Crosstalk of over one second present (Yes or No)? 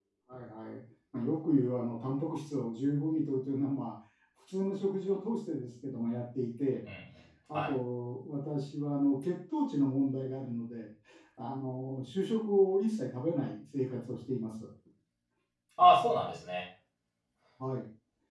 No